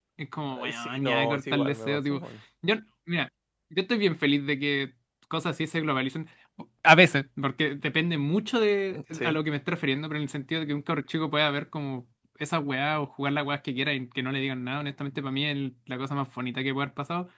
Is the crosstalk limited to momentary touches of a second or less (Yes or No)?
No